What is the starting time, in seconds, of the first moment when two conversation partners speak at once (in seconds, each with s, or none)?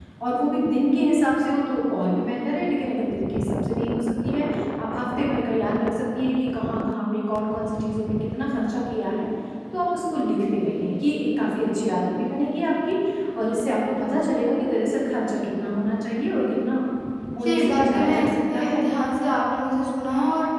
17.4 s